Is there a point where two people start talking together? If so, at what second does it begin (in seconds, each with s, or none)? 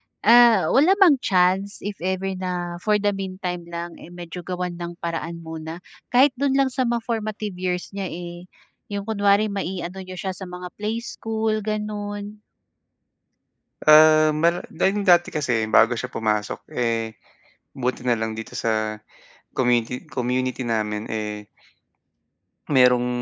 none